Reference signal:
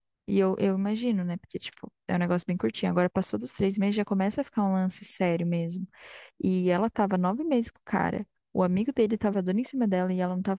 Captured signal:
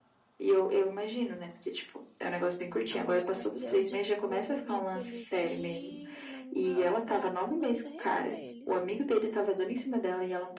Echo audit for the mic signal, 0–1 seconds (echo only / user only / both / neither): echo only